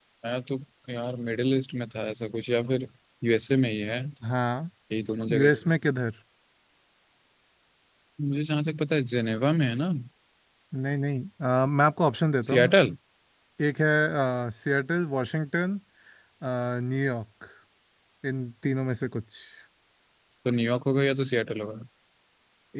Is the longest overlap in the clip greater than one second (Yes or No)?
No